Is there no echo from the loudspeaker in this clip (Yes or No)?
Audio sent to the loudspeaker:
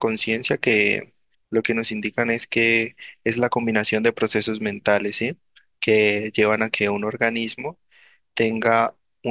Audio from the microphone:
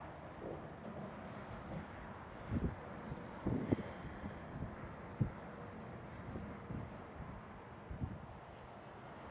Yes